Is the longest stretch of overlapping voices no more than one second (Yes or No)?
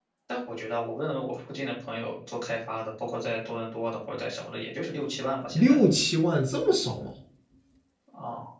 Yes